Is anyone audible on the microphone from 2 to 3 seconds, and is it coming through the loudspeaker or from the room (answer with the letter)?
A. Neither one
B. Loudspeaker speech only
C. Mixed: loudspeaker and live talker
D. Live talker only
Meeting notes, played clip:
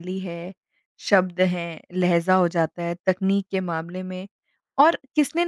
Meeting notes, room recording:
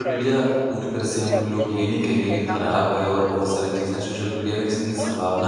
C